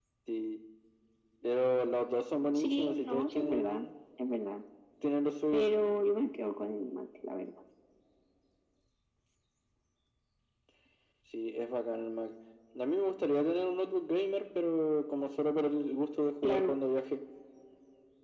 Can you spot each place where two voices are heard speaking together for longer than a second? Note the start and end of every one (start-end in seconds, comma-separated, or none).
2.5-3.8